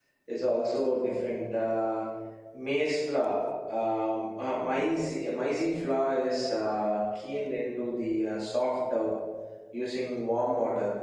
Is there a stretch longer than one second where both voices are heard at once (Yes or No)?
No